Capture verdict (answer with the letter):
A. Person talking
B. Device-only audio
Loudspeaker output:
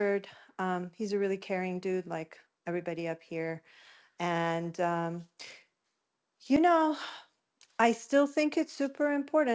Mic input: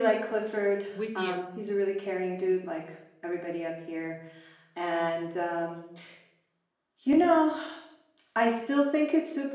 A